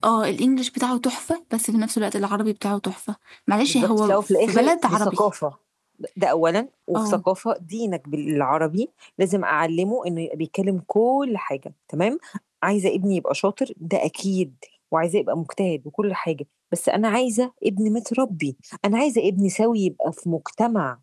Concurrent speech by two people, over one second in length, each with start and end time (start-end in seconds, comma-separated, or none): 3.7-5.2